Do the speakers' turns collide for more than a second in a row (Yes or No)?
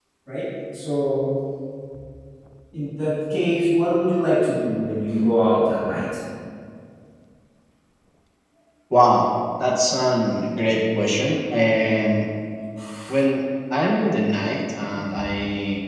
No